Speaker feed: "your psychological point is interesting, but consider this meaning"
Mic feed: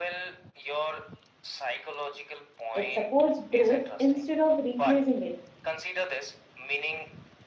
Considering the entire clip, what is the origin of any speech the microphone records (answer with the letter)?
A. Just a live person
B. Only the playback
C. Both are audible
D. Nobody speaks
C